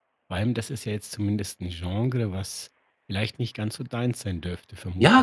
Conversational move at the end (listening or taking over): taking over